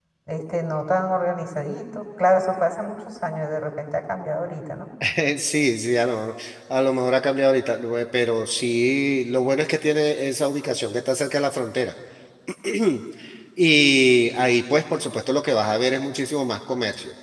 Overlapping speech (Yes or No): No